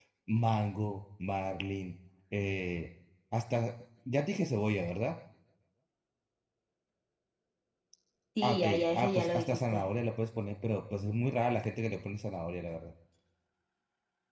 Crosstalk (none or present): present